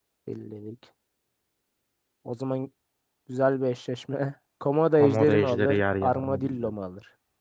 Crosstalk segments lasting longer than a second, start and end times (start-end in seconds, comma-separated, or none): 5.0-6.7